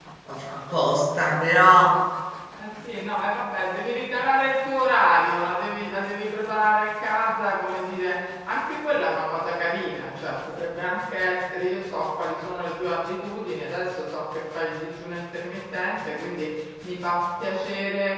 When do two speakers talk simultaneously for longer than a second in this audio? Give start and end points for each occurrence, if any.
none

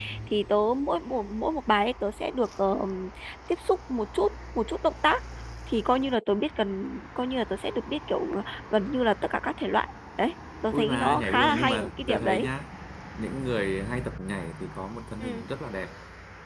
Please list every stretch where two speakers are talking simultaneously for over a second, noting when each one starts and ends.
10.7-12.5

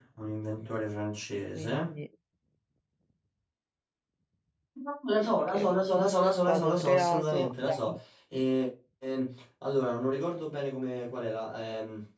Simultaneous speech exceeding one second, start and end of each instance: 6.5-7.7

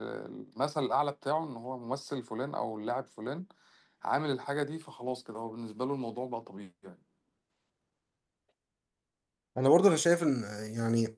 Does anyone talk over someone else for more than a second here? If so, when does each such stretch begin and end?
none

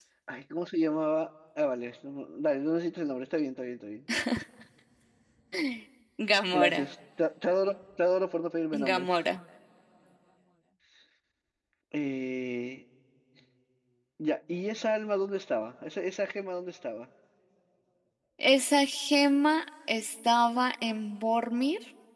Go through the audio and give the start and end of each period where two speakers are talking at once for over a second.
none

